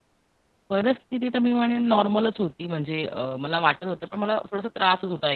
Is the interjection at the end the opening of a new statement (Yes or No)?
No